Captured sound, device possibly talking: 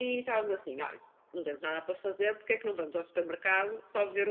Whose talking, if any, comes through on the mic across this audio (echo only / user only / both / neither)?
echo only